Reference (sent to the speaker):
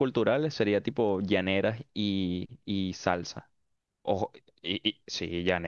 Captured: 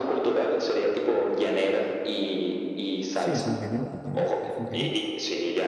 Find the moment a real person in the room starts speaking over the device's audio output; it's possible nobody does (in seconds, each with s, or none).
3.1 s